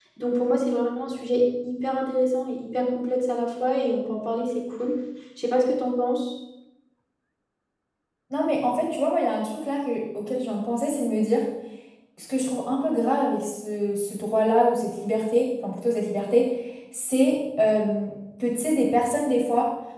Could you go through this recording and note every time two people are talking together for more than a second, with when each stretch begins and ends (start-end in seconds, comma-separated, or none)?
none